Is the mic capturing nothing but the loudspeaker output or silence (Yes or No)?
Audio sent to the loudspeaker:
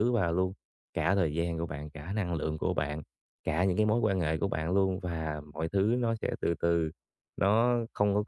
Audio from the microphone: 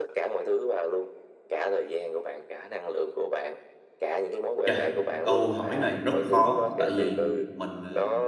No